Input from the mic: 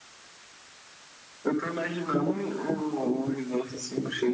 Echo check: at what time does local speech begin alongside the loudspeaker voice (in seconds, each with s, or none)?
none